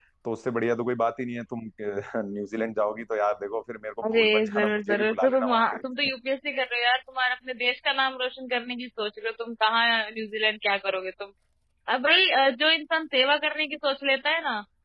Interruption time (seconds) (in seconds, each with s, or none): 4.0 s